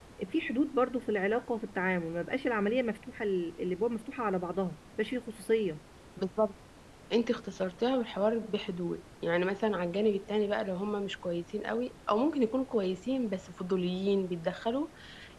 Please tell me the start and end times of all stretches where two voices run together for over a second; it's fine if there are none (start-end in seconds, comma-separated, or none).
none